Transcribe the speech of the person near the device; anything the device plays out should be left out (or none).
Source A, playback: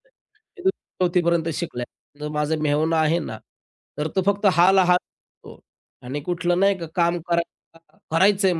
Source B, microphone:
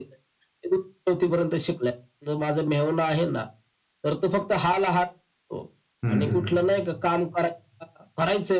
हं,